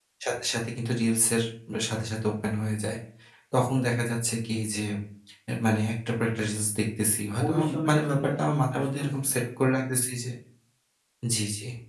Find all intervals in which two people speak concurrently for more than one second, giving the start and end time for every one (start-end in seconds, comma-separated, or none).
7.5-9.4